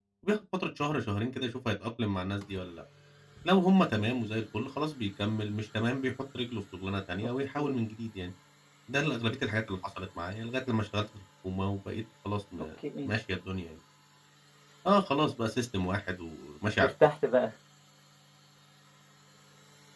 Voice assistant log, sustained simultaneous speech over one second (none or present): none